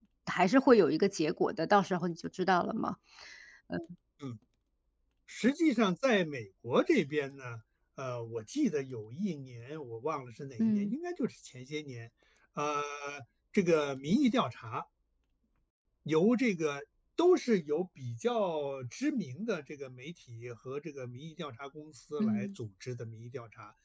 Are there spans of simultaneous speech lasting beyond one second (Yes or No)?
No